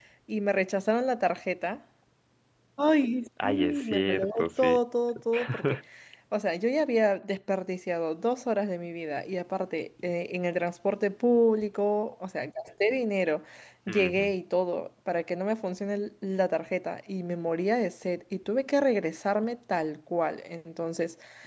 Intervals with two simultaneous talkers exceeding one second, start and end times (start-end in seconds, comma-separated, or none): 3.4-4.8